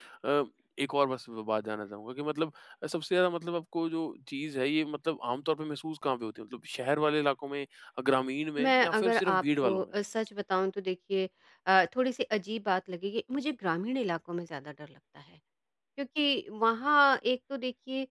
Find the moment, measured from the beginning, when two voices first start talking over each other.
8.6 s

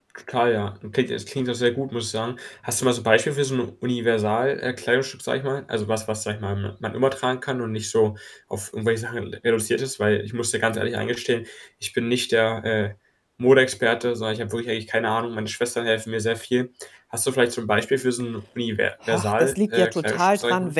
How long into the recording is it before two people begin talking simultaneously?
19.0 s

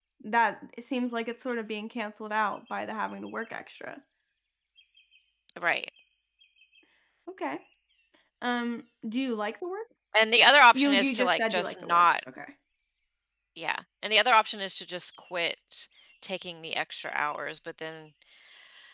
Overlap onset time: 10.7 s

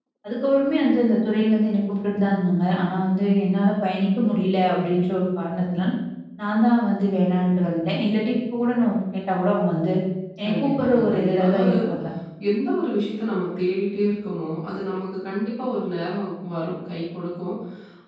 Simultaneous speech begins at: 10.5 s

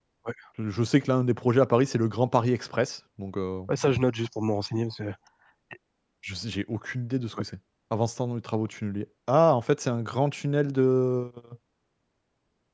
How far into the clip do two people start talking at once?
none

